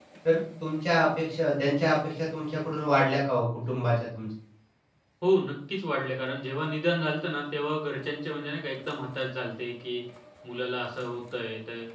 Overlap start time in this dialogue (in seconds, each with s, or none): none